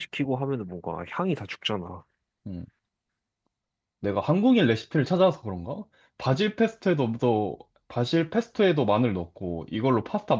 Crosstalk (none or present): none